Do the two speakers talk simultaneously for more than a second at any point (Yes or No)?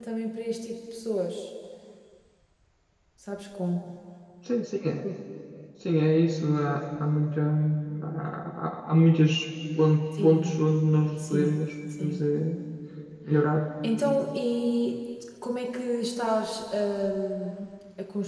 No